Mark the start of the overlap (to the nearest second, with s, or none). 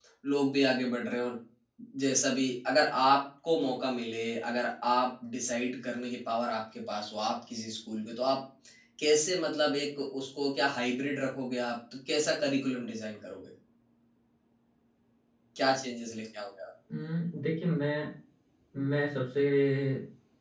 none